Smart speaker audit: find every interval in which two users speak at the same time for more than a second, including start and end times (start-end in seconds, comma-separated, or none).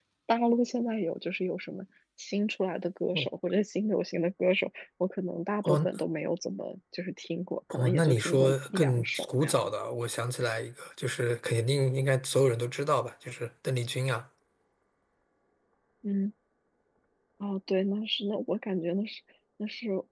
7.7-9.7